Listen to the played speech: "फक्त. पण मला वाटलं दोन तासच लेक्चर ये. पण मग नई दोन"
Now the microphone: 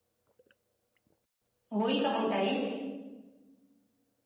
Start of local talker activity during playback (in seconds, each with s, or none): 1.7 s